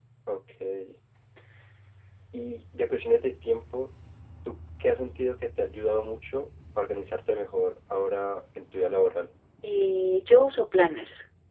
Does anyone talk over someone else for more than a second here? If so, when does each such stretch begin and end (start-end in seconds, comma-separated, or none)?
none